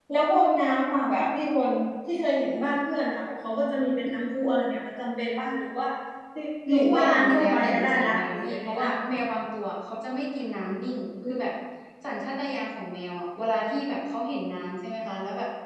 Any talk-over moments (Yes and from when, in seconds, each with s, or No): Yes, from 6.7 s